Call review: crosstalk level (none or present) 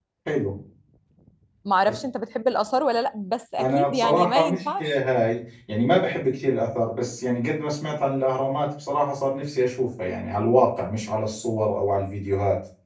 present